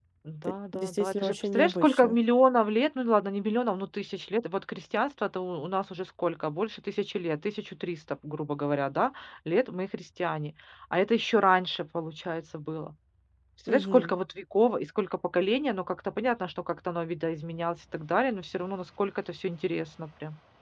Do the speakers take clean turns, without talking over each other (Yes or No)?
No